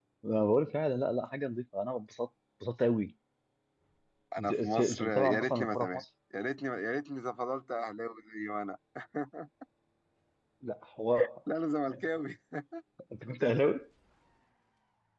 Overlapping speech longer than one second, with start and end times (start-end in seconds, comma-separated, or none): 4.4-6.0